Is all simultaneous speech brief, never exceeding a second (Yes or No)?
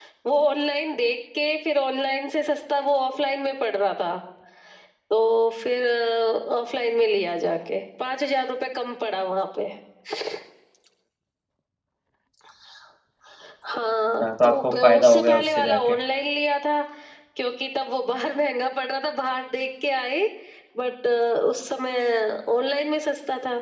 No